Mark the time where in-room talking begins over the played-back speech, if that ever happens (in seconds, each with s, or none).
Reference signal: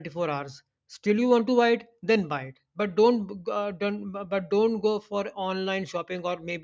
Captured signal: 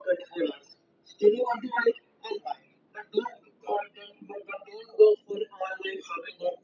none